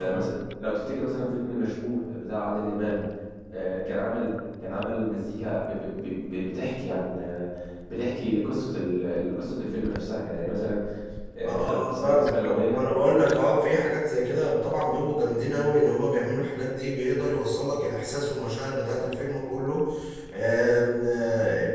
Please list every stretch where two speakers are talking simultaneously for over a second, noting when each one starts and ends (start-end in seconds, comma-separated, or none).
11.4-12.9